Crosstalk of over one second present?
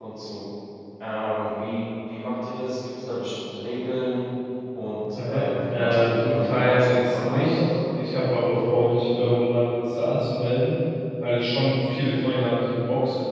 Yes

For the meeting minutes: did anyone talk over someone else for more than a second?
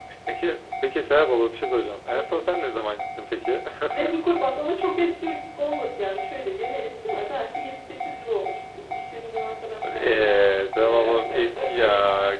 Yes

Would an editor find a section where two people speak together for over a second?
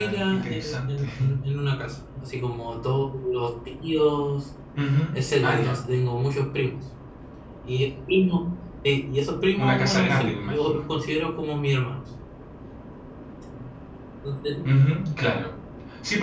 Yes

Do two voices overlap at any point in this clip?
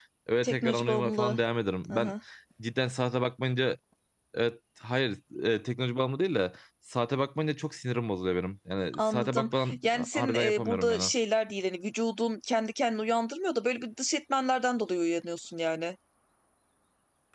Yes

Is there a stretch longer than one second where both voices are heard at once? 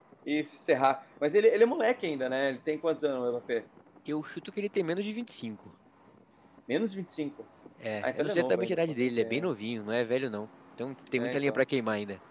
Yes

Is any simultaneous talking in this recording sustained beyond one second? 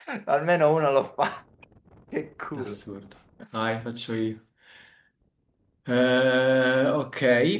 No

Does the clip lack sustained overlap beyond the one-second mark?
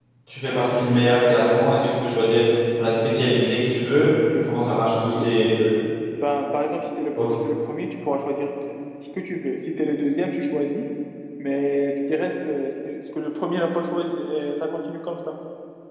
Yes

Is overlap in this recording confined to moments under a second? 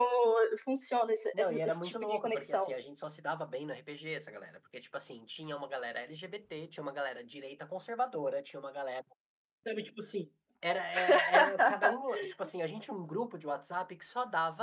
No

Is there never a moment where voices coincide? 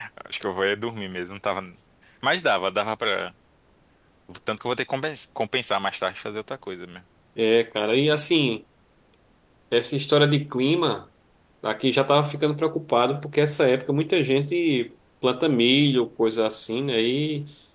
Yes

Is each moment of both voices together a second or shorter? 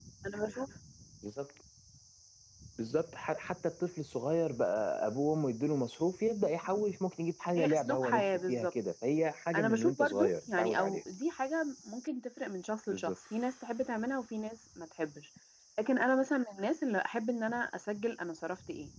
No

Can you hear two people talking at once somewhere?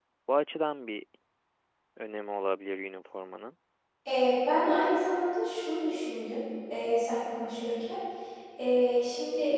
No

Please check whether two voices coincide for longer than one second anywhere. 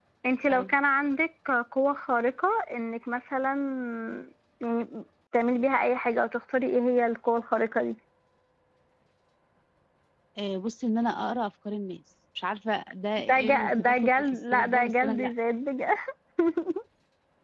Yes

